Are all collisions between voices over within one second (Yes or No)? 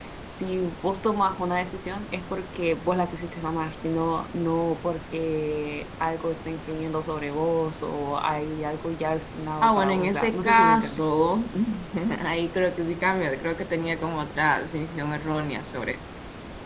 No